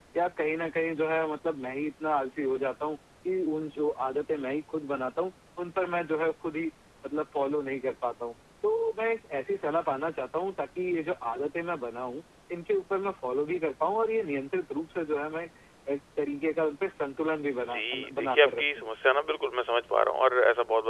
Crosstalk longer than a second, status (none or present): present